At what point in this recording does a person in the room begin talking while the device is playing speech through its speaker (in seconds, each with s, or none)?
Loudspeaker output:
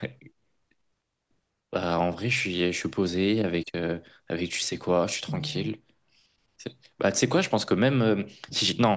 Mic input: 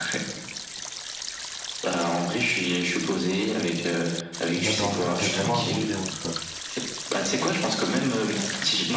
4.6 s